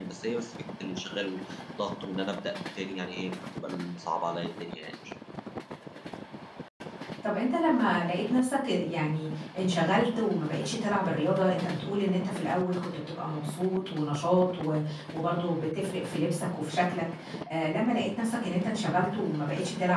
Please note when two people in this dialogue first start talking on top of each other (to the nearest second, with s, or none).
none